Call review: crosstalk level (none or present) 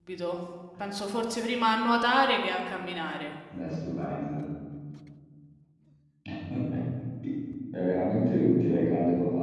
none